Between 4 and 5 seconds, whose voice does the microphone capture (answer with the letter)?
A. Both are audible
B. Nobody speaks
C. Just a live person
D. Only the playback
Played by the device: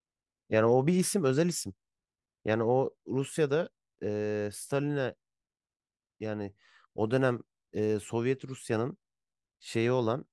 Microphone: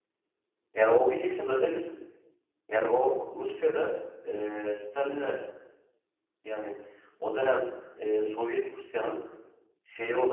D